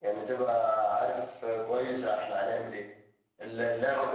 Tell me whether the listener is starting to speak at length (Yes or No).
No